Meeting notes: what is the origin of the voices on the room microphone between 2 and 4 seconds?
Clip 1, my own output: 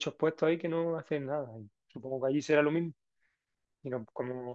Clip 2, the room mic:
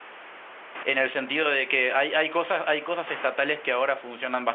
user only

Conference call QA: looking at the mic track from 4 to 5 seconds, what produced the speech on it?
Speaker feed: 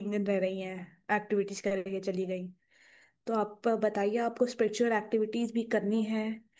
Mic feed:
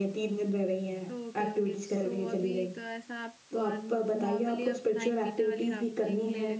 both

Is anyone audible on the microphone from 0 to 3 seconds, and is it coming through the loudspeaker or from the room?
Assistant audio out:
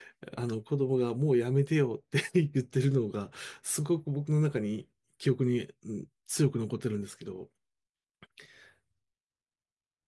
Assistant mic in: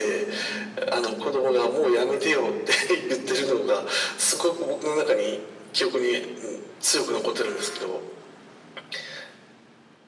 echo only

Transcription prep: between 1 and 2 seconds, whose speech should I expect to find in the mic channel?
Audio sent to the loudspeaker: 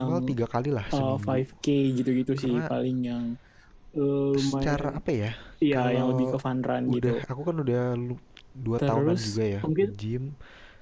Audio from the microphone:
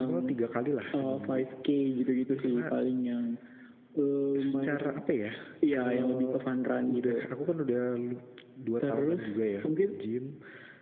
echo only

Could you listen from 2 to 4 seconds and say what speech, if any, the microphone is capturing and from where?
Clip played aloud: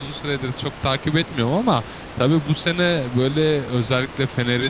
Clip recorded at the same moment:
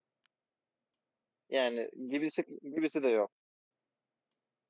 user only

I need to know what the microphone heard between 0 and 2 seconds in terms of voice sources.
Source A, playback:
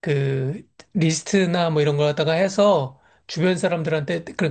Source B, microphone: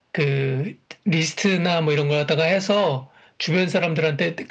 echo only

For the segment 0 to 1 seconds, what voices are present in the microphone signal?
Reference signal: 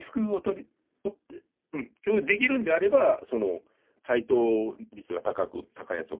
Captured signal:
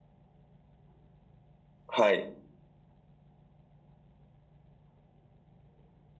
neither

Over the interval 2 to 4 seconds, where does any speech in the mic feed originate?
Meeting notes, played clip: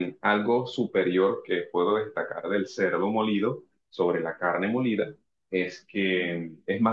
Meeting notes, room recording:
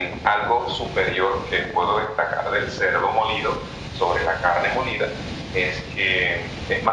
echo only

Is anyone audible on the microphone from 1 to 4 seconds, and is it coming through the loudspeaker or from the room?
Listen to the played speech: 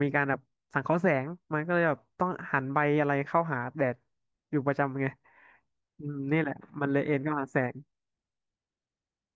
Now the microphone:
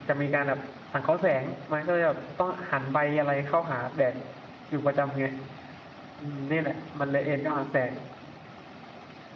echo only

